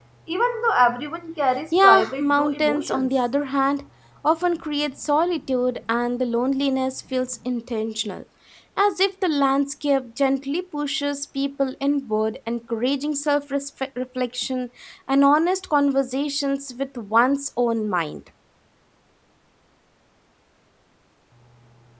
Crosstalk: present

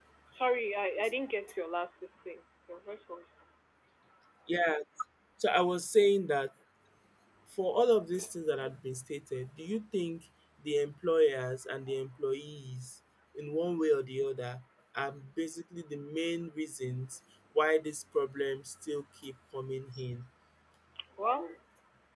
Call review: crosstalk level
none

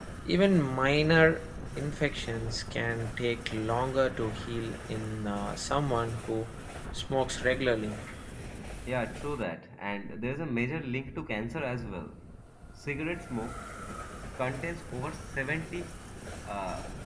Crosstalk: none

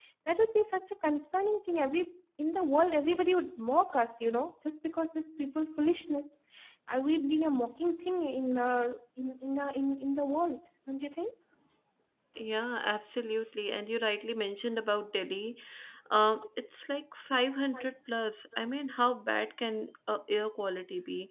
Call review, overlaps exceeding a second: none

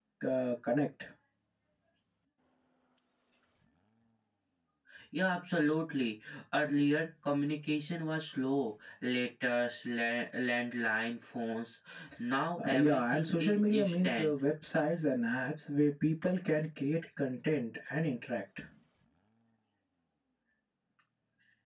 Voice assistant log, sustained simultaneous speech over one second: present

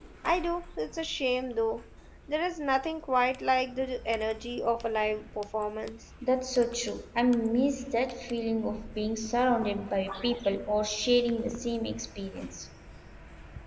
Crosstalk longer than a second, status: none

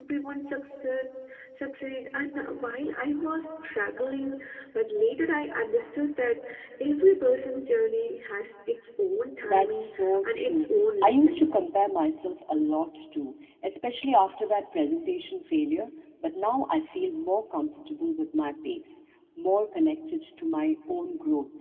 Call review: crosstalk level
present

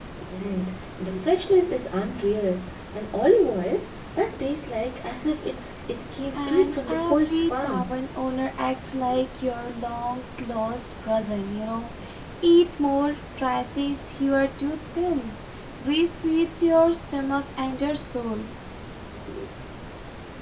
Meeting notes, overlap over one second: present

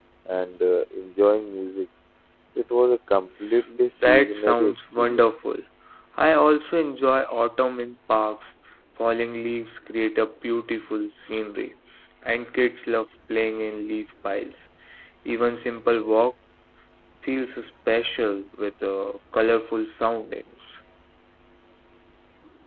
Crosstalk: present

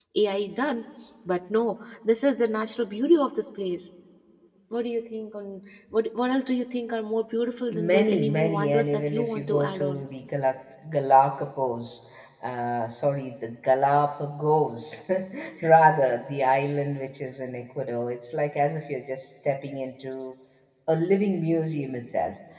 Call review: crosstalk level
present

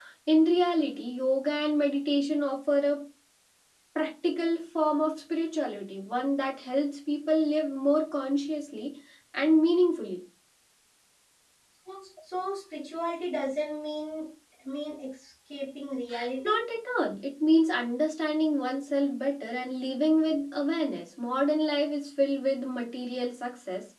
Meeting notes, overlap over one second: none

